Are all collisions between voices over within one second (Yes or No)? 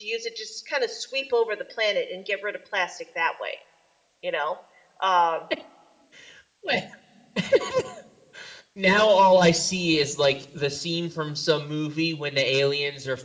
Yes